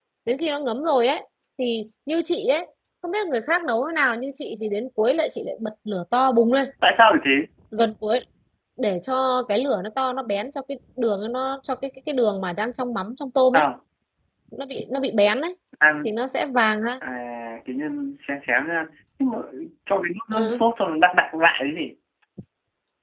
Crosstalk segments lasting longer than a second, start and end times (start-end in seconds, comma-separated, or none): none